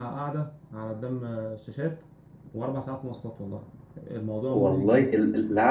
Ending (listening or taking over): taking over